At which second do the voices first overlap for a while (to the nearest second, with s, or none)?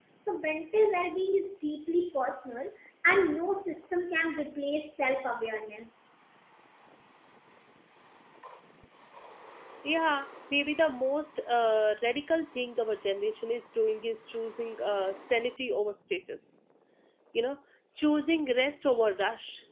none